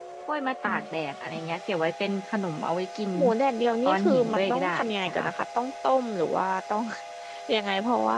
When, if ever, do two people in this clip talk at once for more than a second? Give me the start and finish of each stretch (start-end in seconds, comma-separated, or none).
3.9-5.3